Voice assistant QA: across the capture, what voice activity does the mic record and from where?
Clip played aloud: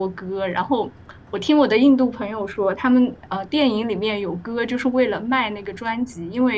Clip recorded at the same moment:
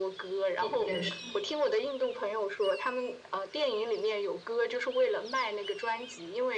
both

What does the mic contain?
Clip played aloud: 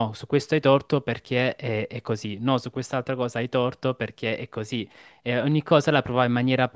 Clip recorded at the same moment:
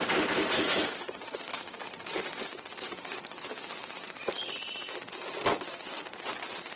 neither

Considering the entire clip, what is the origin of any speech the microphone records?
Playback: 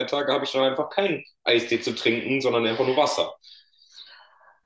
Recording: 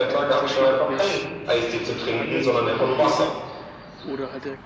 both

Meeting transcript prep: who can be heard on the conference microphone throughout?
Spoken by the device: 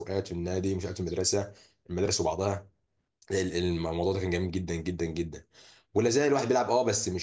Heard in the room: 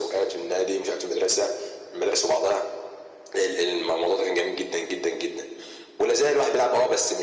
echo only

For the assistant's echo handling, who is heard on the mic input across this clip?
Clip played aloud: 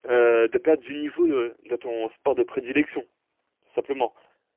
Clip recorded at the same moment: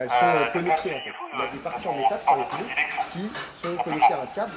both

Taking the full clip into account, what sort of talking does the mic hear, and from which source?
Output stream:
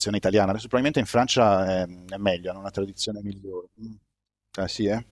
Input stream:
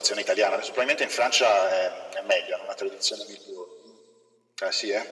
echo only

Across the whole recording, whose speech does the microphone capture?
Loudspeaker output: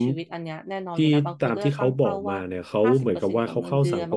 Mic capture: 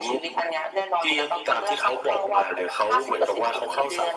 echo only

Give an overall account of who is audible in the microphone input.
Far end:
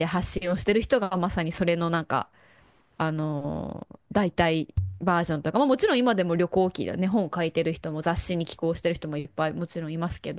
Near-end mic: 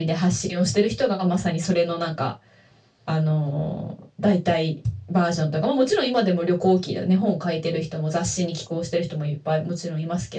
echo only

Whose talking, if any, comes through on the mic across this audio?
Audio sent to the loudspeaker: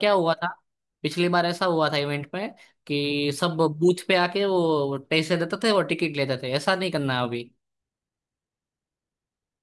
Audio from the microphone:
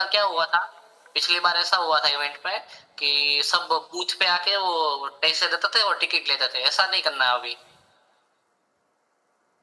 echo only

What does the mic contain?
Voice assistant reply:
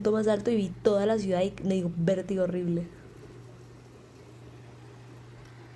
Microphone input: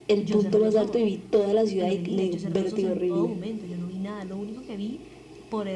both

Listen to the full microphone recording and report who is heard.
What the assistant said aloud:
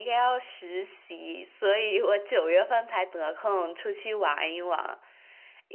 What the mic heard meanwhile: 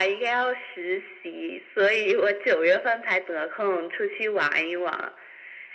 echo only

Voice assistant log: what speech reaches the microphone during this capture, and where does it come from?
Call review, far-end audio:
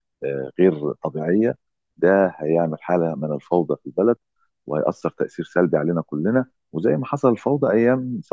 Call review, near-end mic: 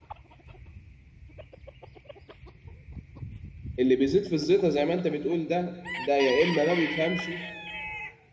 user only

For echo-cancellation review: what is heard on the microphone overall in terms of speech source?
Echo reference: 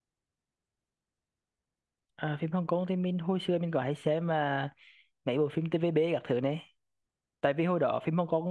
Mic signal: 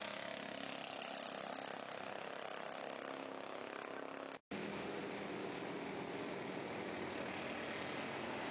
neither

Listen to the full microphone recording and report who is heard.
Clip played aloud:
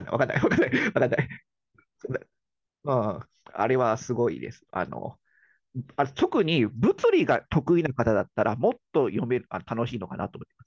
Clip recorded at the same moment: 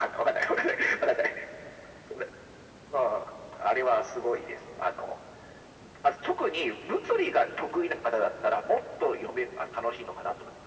echo only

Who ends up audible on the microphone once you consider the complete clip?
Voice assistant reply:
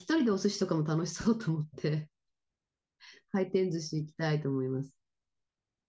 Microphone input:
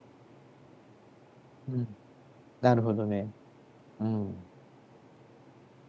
user only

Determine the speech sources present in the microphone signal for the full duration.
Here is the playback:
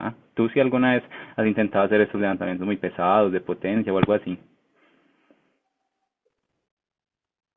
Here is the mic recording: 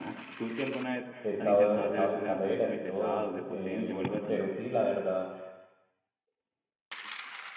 both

